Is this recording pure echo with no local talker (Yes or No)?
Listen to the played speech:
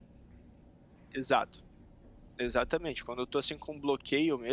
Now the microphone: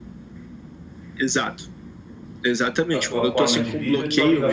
No